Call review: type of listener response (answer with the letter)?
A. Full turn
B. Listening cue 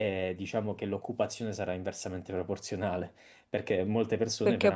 A